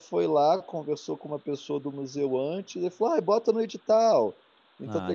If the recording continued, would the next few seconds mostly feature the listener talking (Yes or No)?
No